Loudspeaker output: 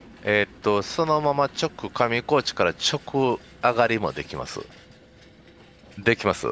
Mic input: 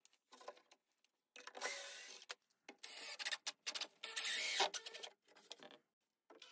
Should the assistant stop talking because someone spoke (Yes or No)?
No